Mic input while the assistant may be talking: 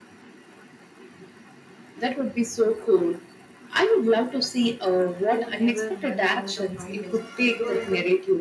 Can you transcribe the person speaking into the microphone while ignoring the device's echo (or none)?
who never runs out of ideas. Though I, sub-